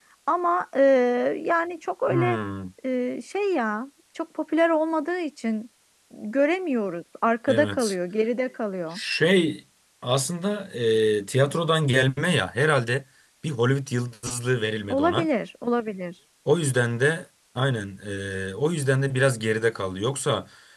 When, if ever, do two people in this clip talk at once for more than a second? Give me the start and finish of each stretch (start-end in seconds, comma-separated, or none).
none